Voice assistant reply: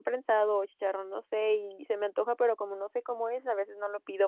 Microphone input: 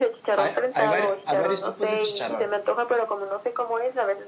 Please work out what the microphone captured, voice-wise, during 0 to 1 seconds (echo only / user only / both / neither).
both